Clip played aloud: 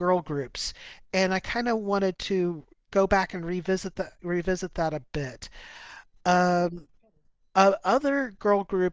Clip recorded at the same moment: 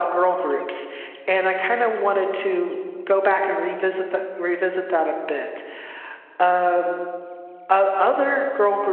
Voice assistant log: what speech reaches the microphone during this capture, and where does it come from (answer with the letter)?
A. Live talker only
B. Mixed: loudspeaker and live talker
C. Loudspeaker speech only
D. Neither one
C